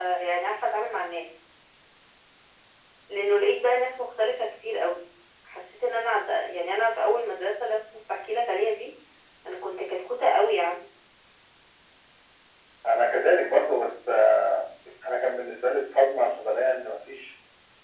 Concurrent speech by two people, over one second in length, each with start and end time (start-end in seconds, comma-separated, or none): none